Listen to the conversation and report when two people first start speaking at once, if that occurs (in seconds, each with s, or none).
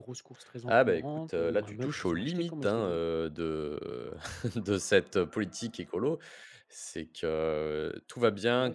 0.7 s